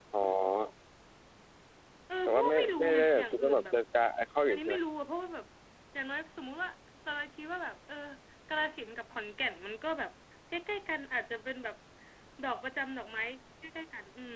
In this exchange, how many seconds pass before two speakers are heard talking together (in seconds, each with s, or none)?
2.3 s